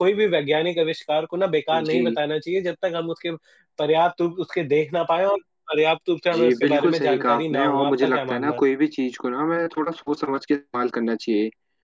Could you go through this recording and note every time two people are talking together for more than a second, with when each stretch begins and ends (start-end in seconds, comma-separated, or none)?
6.3-8.6